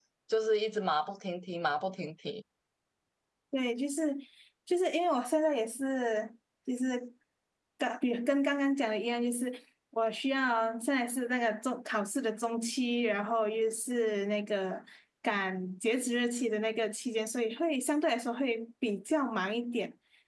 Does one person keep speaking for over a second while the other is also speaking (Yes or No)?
No